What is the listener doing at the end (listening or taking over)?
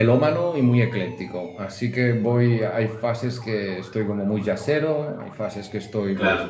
listening